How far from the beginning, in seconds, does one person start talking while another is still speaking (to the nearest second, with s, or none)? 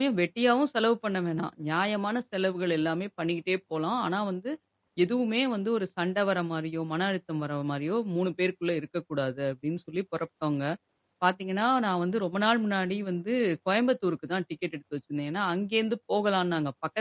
none